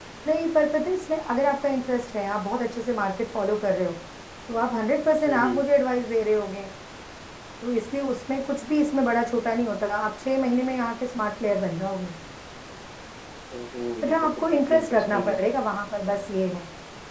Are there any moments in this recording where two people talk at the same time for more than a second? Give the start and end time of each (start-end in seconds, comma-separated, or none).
14.0-15.4